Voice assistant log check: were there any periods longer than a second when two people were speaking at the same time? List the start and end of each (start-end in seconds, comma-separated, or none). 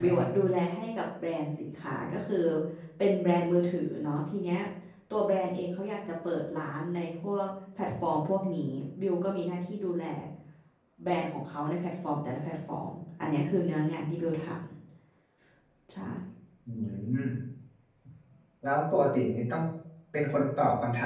none